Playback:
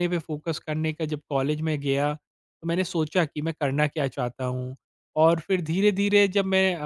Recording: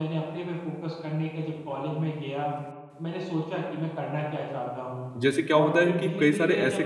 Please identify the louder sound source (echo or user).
user